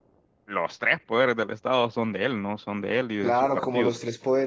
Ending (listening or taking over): taking over